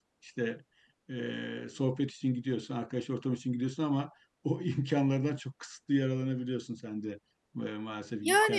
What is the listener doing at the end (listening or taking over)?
taking over